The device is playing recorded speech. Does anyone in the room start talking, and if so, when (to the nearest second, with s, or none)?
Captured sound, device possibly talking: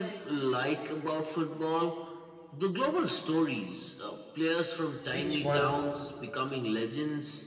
5 s